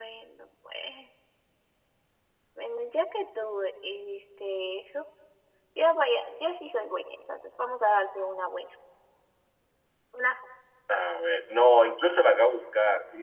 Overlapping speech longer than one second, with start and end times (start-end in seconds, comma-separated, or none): none